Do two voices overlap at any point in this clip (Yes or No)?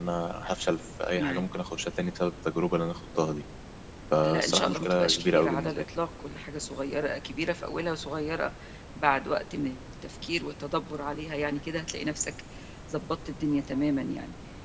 Yes